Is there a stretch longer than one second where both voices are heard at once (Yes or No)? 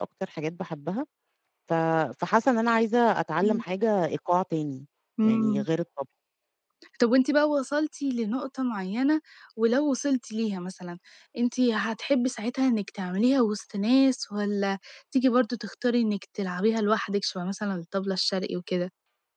No